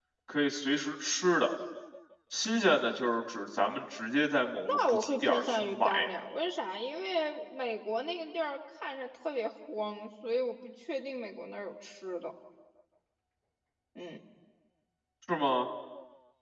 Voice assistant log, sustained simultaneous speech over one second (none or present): present